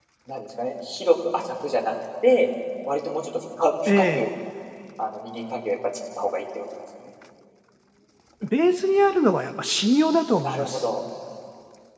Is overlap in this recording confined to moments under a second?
Yes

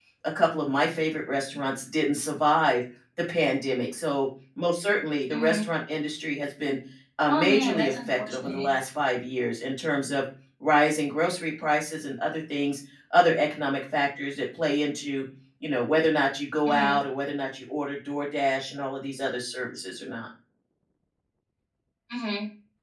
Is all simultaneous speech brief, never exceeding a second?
No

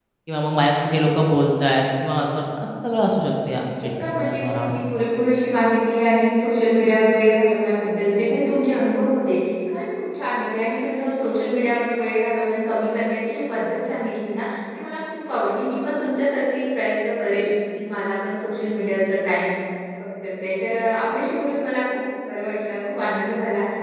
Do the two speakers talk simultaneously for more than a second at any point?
Yes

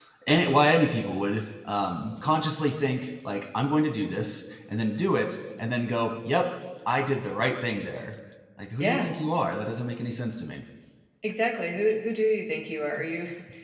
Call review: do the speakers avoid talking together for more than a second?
Yes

